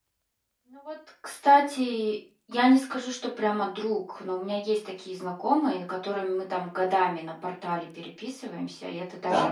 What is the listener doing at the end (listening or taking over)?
listening